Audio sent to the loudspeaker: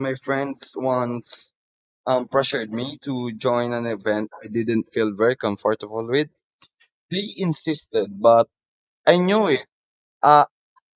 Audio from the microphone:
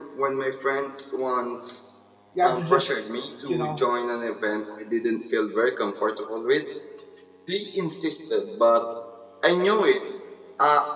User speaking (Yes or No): Yes